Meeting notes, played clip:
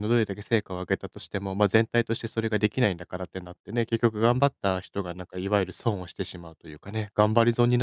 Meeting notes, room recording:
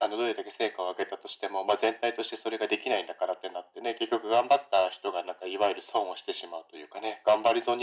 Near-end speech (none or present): none